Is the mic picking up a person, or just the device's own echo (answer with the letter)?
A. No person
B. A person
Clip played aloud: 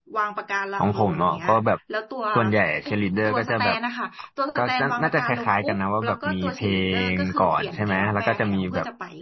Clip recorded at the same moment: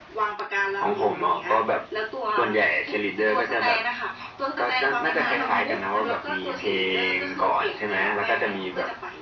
B